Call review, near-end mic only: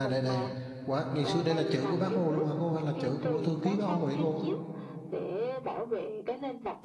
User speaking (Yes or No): Yes